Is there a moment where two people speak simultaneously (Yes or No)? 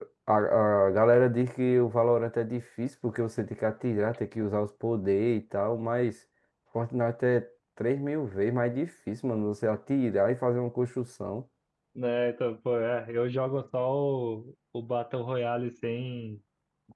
No